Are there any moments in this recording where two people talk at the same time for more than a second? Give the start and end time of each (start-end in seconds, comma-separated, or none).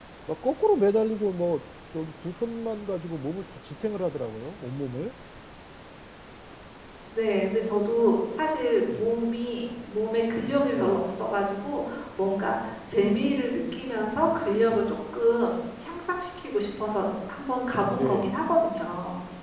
none